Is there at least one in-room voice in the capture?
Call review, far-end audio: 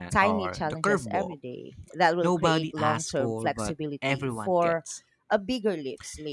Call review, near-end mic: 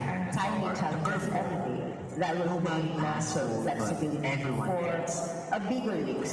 No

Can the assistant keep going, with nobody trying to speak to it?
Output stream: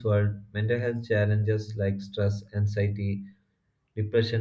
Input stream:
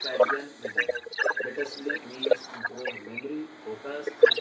No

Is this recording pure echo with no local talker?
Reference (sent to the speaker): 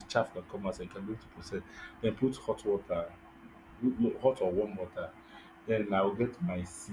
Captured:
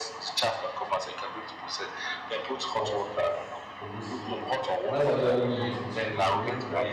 No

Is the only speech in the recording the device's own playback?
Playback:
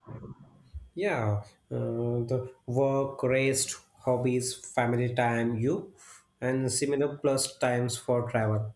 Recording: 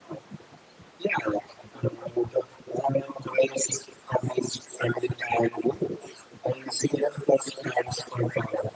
Yes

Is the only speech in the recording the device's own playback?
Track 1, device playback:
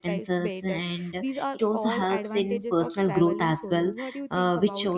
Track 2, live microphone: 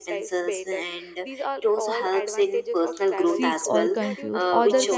No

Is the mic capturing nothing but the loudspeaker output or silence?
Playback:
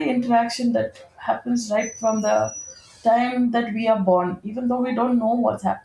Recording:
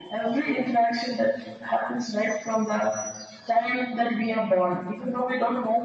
Yes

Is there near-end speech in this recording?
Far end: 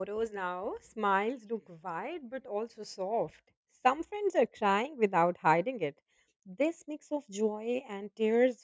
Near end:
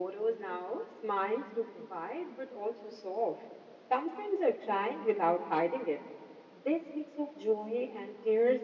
No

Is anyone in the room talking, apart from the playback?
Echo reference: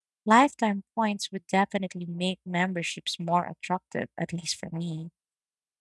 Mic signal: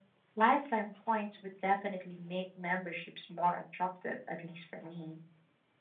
No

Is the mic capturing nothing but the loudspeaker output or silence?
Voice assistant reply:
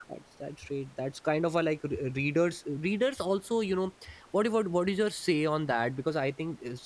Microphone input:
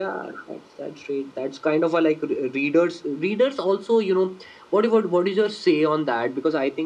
Yes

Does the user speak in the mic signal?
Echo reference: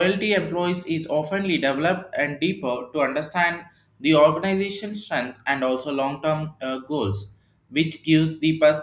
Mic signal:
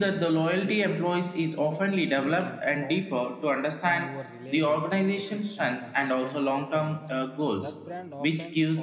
Yes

